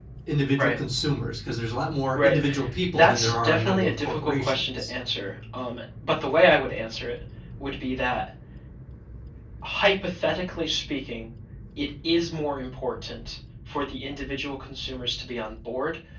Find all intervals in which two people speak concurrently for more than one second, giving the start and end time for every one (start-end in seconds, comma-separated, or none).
2.9-4.9